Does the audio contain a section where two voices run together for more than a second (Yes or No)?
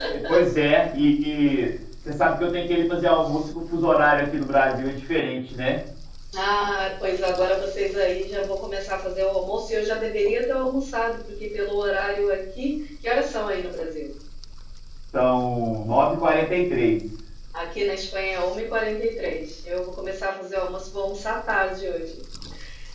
No